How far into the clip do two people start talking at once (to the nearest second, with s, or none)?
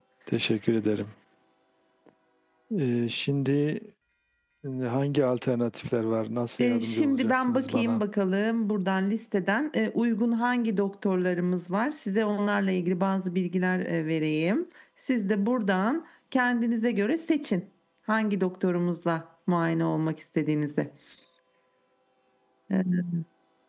7 s